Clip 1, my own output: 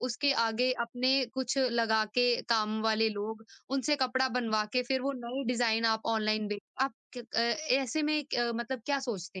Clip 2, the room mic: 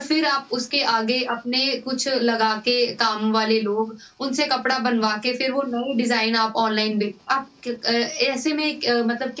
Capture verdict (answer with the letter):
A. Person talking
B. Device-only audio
B